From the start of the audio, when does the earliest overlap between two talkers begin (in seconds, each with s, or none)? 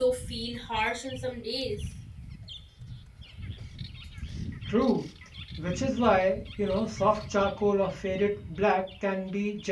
none